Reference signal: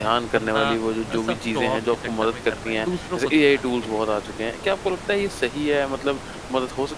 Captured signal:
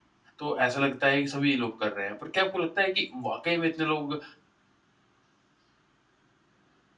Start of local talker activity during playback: 0.4 s

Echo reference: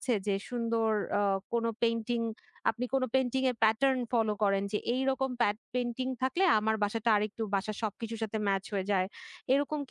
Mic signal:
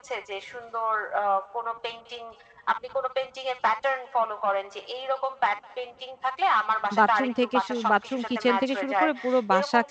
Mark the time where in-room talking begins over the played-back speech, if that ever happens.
7.0 s

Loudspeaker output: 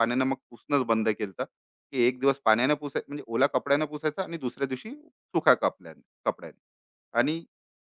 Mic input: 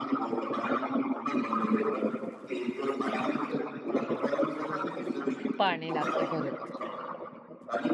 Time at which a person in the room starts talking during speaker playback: 5.6 s

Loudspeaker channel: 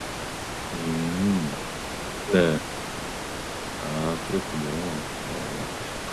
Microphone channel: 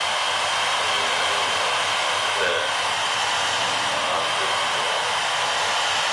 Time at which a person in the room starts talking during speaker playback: none

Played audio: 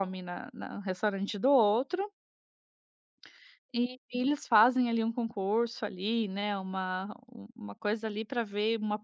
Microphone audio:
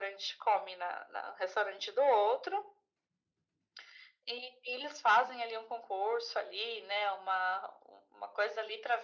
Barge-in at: none

